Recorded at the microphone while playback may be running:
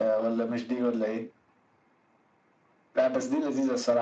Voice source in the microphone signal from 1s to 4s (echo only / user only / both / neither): echo only